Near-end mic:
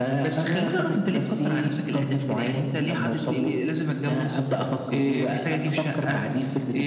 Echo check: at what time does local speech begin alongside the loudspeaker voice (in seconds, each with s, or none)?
none